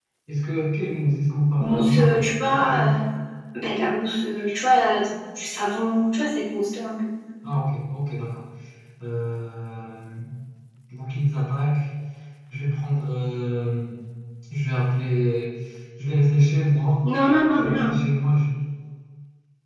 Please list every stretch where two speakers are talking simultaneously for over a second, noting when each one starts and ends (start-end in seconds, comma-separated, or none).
1.6-2.9